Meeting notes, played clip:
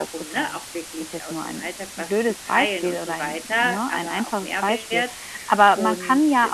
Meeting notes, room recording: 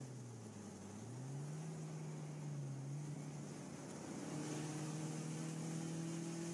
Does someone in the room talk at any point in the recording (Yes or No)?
No